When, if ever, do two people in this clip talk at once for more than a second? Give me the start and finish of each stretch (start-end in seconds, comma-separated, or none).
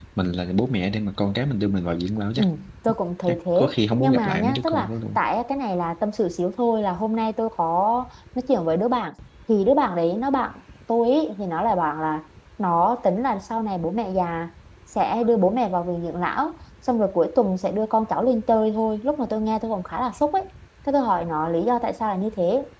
3.3-4.9